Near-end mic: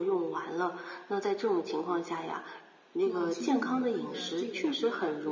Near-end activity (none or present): present